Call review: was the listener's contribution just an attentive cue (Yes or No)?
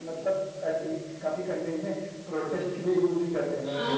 No